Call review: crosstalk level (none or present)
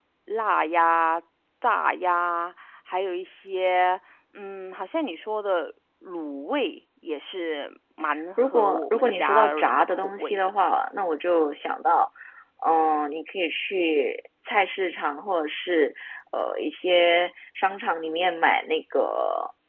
present